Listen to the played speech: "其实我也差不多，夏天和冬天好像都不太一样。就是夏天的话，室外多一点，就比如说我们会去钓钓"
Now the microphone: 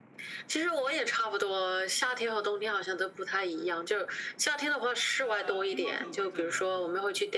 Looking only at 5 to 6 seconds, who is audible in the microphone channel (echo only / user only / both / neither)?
both